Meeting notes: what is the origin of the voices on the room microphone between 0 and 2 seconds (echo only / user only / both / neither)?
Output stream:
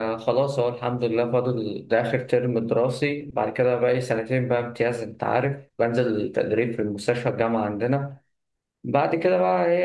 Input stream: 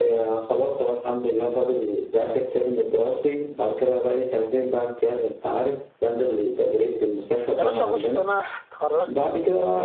echo only